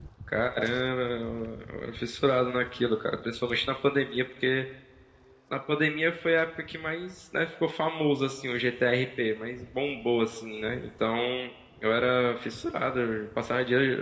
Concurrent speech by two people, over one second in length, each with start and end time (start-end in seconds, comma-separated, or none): none